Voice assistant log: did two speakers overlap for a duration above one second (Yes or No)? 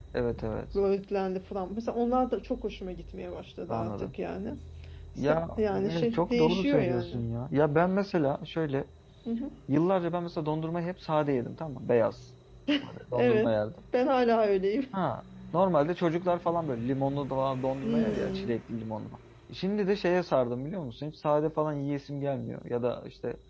Yes